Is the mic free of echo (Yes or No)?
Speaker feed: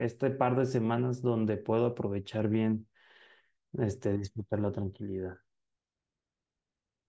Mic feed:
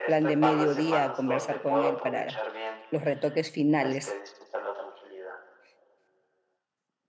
No